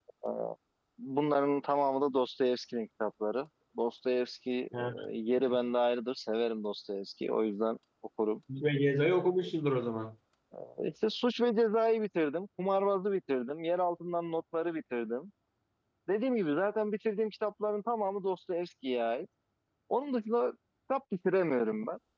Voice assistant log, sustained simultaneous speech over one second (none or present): none